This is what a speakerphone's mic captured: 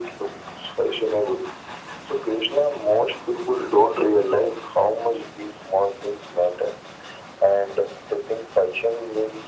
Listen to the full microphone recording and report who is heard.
echo only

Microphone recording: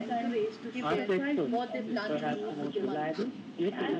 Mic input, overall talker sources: both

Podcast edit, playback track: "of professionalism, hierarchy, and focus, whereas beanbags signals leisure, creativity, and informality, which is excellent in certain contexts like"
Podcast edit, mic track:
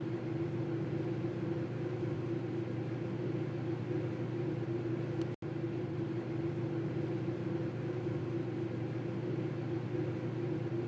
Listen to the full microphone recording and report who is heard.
neither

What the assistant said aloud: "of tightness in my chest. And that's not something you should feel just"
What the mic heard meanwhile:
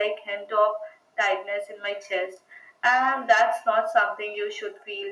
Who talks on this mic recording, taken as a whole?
echo only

